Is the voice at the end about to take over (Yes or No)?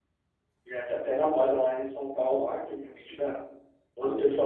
No